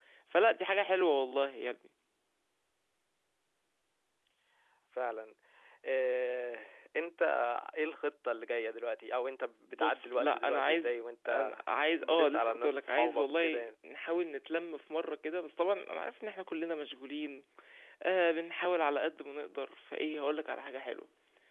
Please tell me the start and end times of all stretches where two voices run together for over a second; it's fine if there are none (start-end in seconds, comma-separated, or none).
9.6-11.5, 12.0-13.7